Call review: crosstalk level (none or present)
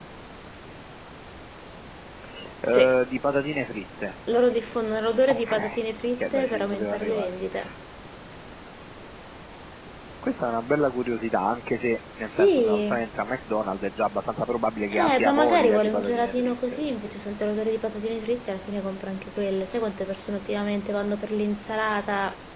present